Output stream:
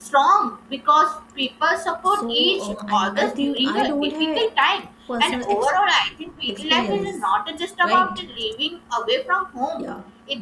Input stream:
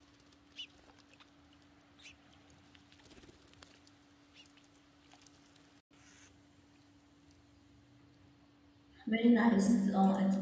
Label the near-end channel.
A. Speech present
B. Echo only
A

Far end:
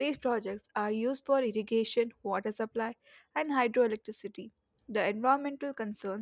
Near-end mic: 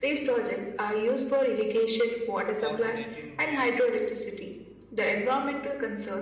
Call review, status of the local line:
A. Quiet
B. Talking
B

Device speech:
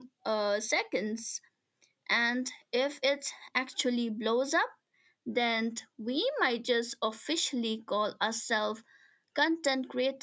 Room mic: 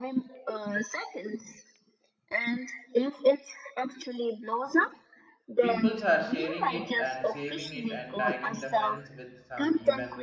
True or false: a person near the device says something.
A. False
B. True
B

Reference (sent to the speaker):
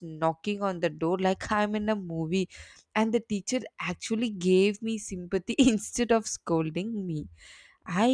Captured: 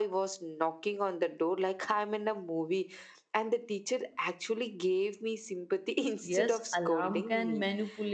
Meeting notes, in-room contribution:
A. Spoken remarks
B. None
A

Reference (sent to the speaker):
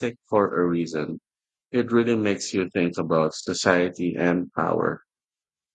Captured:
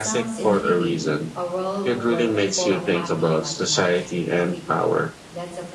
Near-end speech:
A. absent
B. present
B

